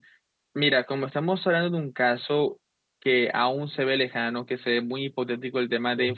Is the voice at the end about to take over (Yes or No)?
No